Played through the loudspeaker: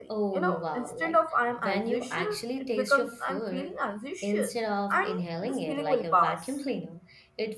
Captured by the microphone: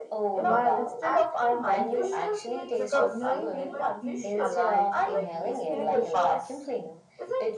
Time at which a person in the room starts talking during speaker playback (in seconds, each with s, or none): 0.4 s